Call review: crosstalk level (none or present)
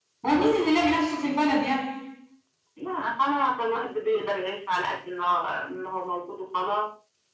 none